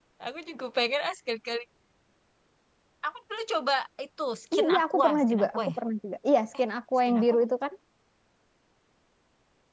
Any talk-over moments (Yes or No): Yes